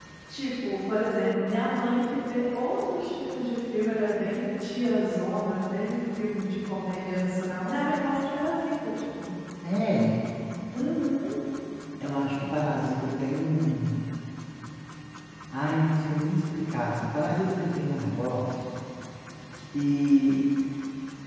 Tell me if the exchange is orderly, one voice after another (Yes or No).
Yes